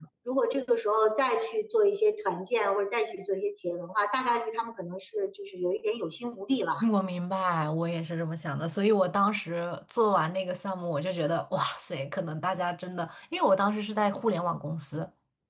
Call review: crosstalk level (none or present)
none